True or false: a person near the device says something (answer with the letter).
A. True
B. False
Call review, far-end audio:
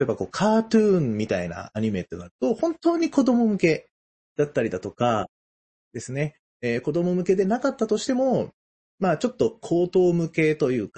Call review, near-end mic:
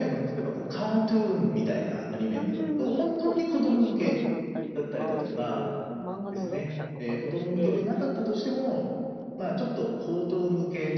A